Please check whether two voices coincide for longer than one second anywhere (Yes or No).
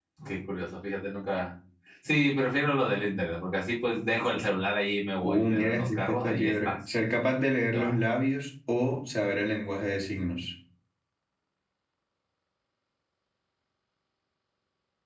Yes